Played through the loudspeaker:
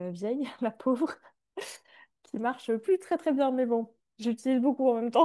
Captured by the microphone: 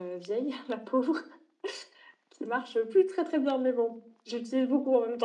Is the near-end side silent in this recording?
Yes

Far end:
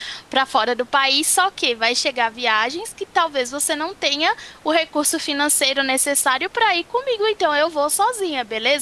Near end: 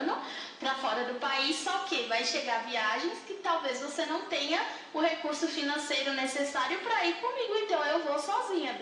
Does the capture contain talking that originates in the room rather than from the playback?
No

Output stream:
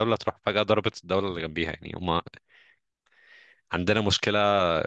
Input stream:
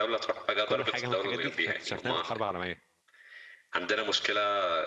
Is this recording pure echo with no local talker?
No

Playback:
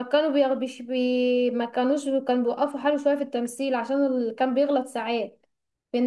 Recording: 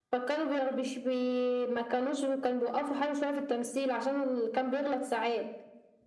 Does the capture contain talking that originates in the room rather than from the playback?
No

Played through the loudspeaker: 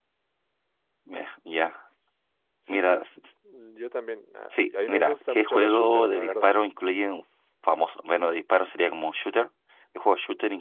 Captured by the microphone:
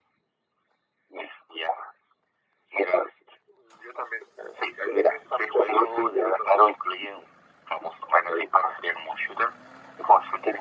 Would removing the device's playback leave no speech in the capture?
Yes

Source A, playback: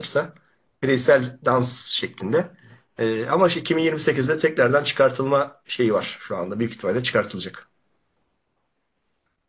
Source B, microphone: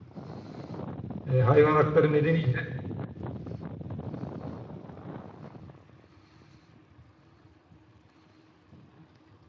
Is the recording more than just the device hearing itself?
Yes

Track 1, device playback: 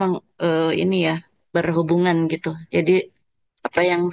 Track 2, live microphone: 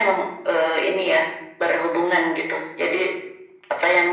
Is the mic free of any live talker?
Yes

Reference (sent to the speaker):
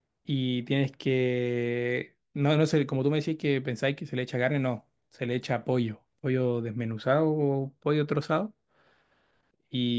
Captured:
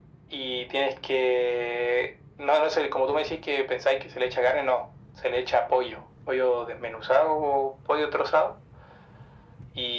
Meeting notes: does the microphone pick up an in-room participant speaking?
No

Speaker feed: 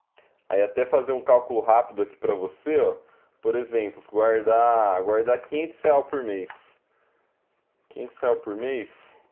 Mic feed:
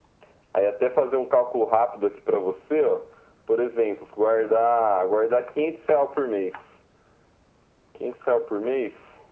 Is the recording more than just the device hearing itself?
No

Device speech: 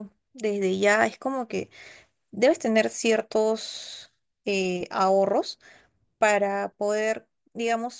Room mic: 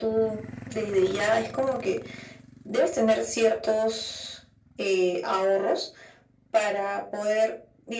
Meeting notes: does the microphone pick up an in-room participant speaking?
No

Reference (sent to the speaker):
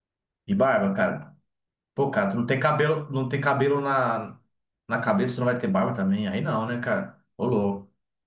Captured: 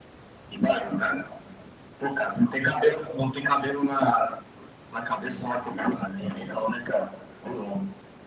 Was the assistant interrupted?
No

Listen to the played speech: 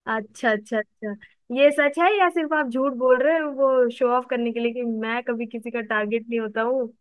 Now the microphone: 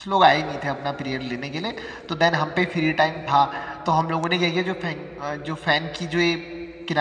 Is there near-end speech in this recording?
Yes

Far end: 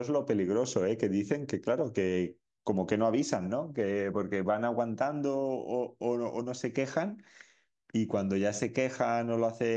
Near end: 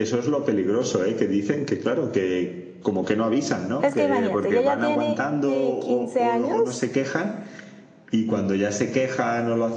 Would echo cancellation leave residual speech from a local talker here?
Yes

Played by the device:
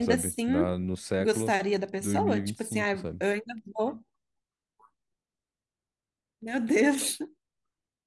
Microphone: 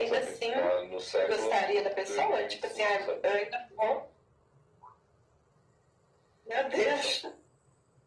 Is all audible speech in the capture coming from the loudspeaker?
Yes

